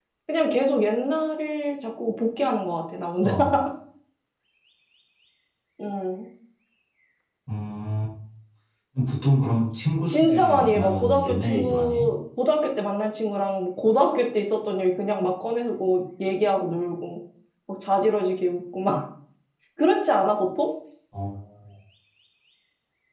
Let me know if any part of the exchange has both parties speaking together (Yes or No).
Yes